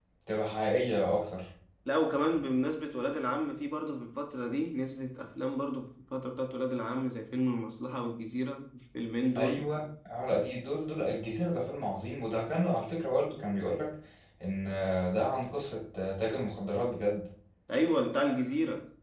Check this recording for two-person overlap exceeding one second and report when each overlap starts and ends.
none

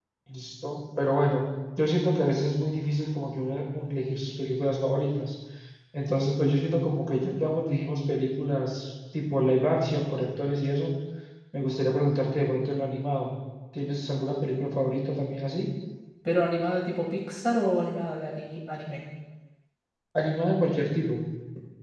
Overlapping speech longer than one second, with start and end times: none

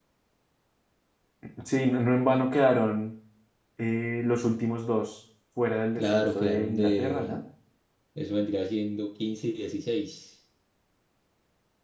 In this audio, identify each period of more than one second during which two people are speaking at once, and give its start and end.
6.0-7.4

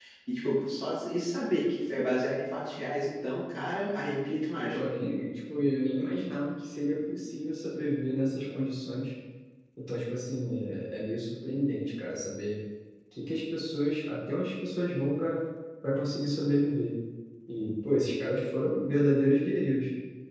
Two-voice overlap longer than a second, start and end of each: none

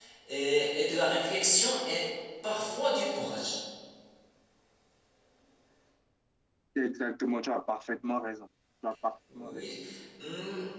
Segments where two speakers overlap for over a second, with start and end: none

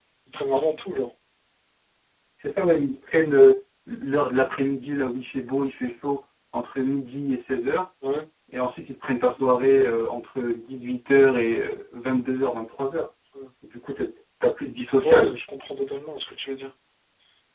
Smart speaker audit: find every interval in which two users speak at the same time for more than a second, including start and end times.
none

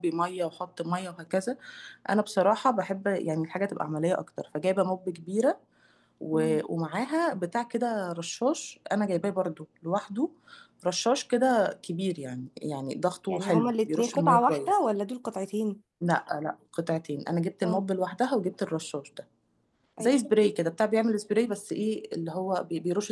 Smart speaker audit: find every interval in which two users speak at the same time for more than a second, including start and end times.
13.3-14.8

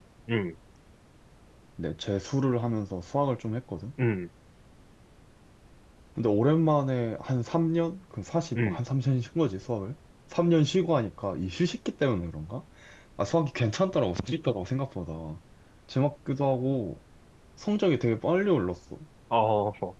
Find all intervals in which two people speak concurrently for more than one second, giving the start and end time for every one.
none

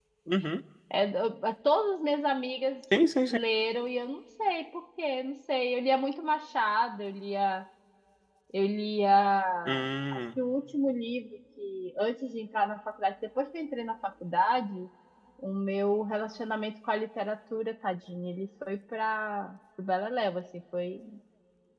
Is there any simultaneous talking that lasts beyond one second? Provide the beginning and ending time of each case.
none

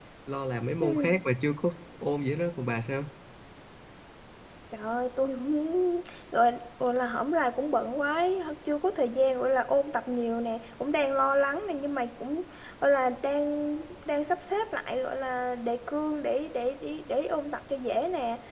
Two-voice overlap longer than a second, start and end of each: none

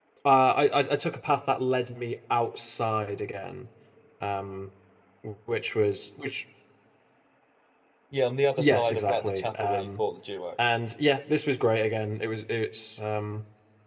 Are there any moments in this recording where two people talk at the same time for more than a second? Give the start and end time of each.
8.6-10.0

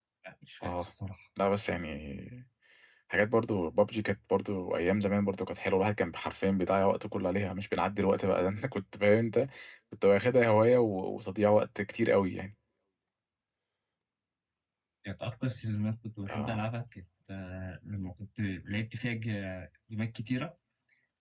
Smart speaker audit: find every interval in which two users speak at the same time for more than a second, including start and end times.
none

